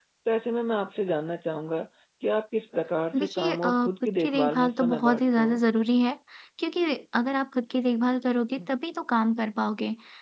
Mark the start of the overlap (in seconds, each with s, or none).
3.1 s